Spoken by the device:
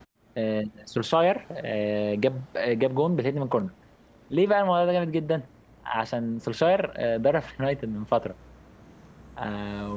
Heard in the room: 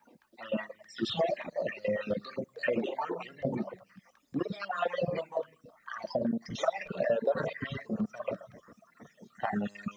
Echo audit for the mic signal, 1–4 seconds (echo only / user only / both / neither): echo only